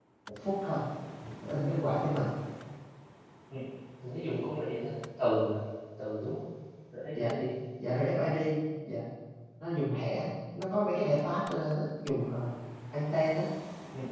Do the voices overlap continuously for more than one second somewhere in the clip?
No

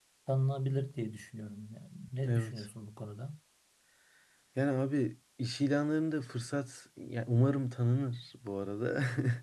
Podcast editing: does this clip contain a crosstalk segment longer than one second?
No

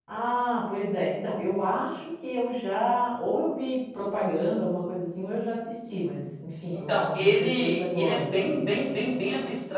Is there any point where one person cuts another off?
Yes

